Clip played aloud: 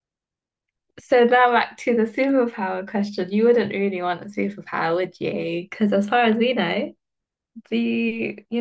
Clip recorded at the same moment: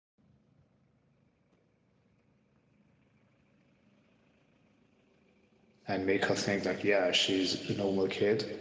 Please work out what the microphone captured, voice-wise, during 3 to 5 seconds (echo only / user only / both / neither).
neither